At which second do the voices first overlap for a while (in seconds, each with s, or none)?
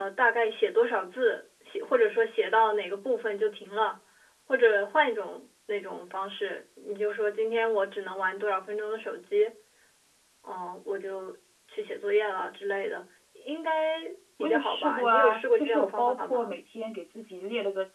14.4 s